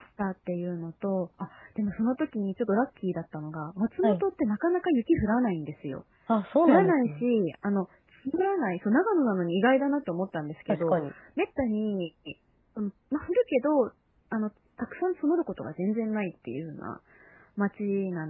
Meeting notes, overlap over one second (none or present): none